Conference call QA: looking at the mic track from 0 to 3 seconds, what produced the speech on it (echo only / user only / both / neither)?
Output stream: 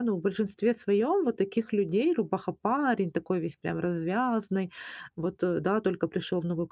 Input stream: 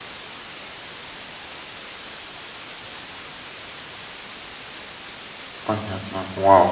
neither